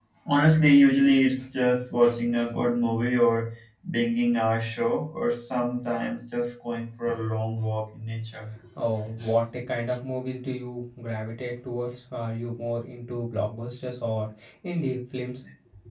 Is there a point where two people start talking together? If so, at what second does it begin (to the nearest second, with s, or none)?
none